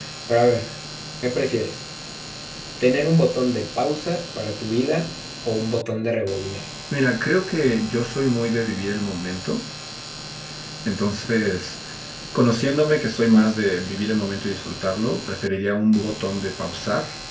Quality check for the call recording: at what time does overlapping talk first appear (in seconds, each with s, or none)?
none